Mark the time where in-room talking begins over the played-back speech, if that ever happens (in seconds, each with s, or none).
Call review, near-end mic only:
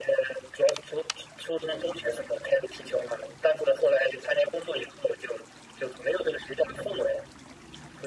none